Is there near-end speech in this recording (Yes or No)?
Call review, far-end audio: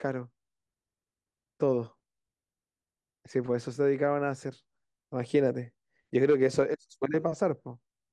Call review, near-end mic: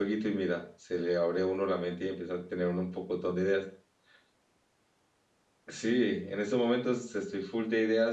Yes